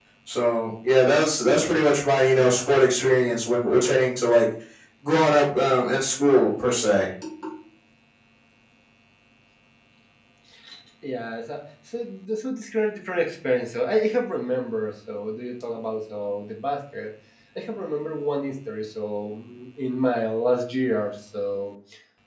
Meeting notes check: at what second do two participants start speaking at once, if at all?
none

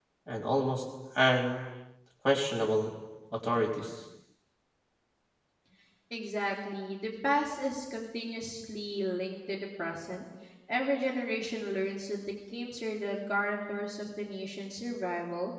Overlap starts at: none

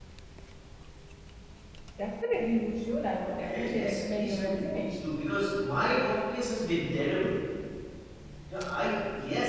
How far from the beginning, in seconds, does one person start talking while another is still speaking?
3 s

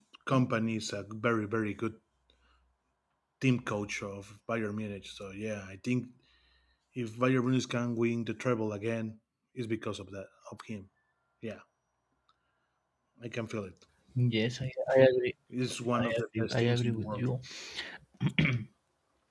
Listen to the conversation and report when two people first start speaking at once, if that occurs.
16 s

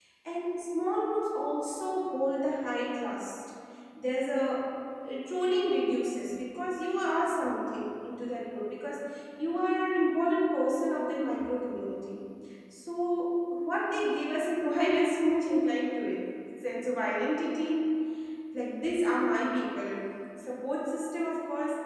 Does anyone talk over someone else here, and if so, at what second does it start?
none

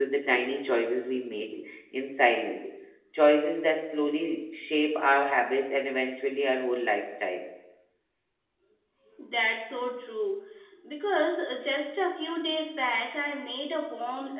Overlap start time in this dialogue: none

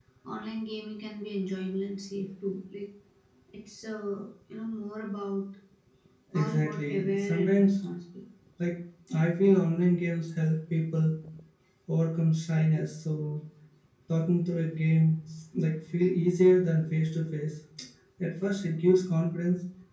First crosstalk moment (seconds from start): 6 s

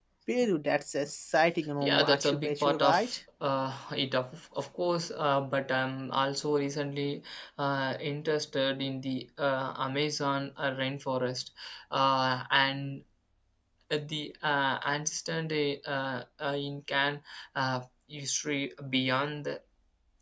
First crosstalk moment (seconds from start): 2 s

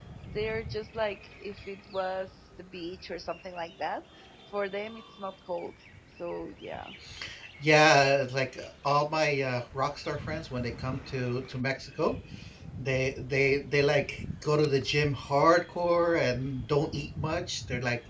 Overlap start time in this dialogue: none

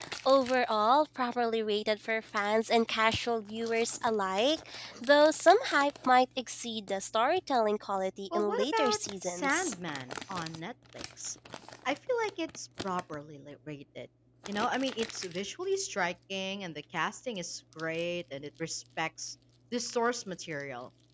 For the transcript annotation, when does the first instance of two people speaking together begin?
8 s

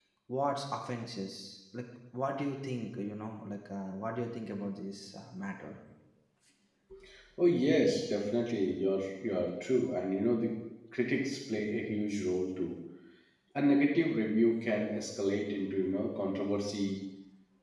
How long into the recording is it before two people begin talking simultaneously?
none

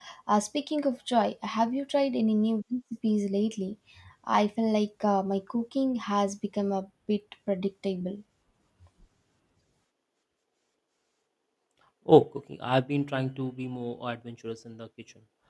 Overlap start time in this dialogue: none

